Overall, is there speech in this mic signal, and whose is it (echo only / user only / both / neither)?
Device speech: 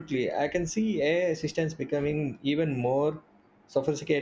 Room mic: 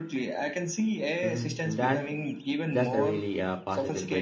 both